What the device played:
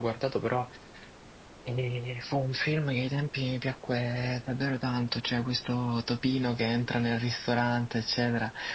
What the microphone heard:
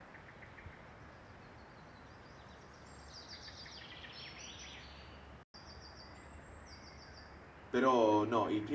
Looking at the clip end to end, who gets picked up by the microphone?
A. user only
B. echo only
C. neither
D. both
A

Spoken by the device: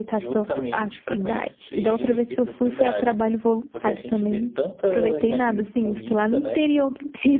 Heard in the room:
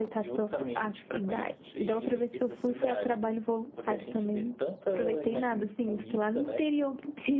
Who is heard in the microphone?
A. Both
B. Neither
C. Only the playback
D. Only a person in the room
C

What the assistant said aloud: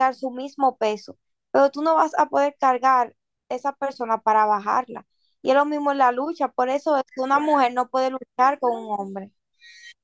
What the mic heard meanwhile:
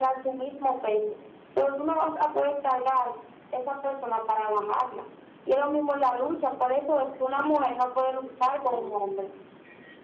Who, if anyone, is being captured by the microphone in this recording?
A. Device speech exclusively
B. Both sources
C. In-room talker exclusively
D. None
A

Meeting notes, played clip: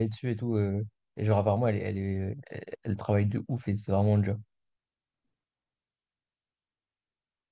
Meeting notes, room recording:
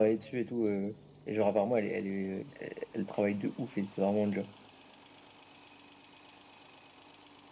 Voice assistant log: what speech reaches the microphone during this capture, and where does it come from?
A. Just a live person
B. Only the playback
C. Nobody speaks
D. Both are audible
B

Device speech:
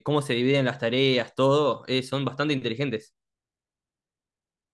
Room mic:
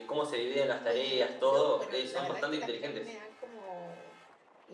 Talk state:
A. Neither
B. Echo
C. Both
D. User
C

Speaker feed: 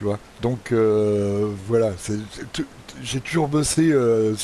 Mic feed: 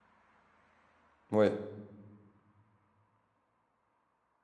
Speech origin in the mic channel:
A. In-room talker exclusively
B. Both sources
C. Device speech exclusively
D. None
A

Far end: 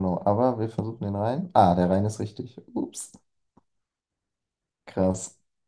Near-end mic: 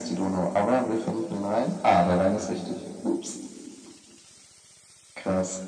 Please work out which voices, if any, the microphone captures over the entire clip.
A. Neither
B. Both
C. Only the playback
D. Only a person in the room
C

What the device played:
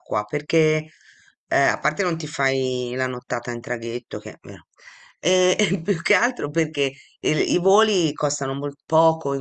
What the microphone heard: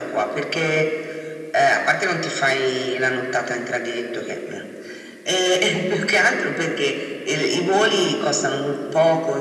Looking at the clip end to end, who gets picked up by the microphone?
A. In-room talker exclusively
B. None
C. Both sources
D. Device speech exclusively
D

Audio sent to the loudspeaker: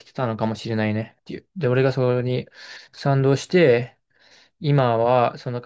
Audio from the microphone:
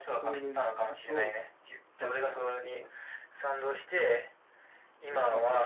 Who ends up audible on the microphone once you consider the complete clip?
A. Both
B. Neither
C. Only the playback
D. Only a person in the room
A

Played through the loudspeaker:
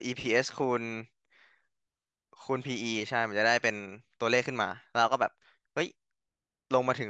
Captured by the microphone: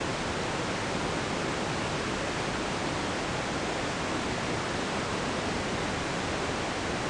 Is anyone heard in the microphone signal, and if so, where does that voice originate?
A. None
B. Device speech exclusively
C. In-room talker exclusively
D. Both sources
A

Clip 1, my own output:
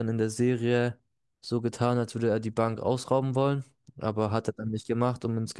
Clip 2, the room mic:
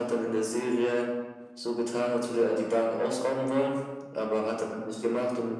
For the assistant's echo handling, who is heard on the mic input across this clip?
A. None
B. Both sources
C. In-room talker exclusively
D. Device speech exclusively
D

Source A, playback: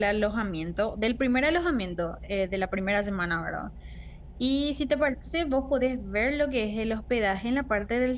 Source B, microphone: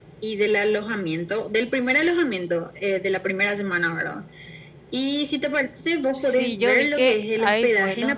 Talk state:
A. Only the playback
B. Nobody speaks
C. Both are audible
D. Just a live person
C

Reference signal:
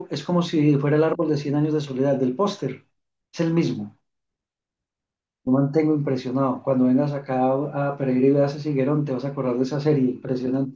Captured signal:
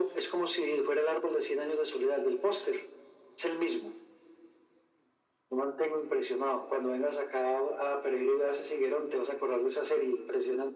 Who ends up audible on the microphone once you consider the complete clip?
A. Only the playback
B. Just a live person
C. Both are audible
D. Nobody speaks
A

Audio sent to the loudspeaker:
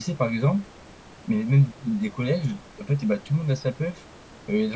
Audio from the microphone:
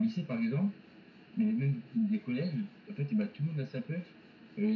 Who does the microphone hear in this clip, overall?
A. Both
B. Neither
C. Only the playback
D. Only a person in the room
C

